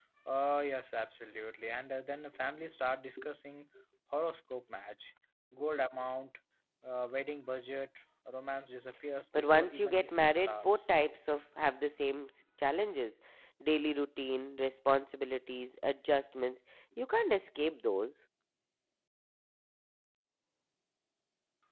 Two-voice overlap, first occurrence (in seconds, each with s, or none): 9.3 s